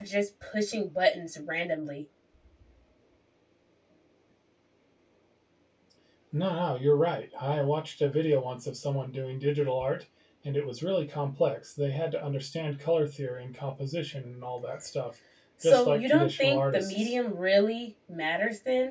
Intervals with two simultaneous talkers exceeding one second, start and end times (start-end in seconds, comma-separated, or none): 15.6-17.1